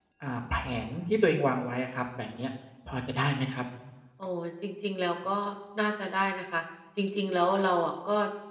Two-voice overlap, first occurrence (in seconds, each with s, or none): none